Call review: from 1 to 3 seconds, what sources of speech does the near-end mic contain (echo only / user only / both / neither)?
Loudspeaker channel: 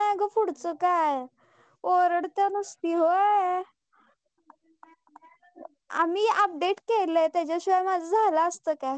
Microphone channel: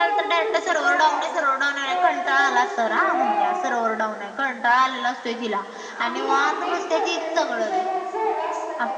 both